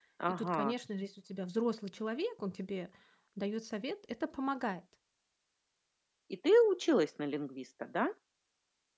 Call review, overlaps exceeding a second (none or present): none